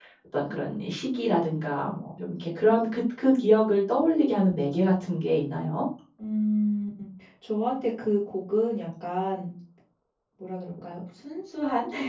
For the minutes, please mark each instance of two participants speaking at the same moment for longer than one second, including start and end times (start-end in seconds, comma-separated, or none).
none